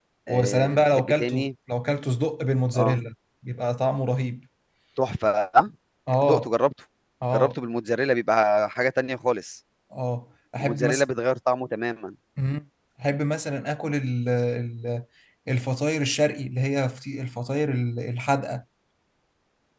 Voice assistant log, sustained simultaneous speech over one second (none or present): present